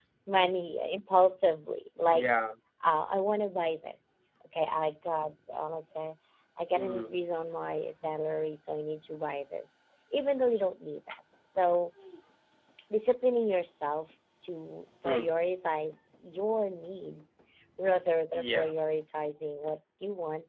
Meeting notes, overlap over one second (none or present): none